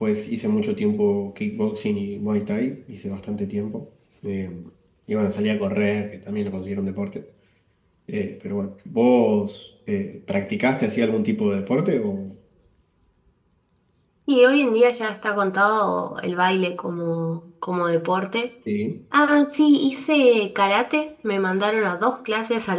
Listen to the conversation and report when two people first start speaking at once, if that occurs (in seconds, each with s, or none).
none